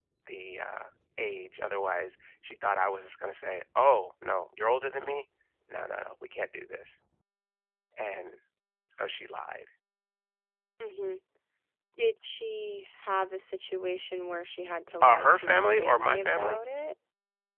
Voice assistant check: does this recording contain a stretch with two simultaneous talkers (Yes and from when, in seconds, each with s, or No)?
Yes, from 15.0 s